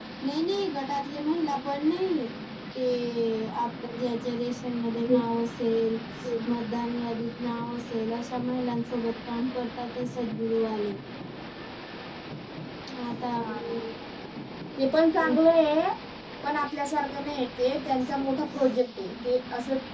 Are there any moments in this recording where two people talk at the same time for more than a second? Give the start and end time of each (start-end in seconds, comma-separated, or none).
none